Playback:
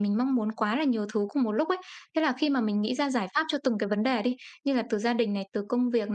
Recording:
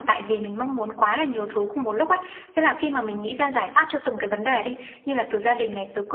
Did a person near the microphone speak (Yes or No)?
No